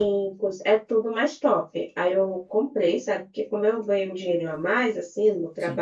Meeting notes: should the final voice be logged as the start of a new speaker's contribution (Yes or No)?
No